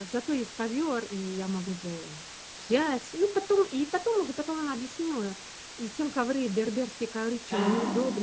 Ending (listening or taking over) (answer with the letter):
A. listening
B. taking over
A